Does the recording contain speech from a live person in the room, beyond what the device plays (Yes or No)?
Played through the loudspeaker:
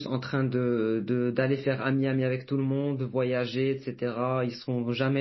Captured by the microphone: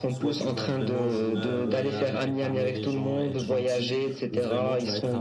Yes